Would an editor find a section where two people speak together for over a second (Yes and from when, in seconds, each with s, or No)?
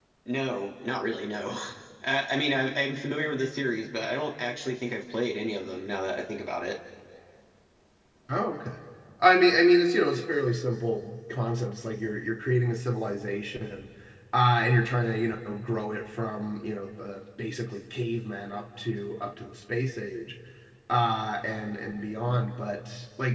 No